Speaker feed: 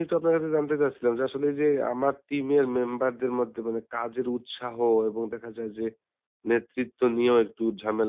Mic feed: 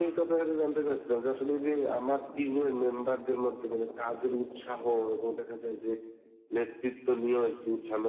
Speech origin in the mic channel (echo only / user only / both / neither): echo only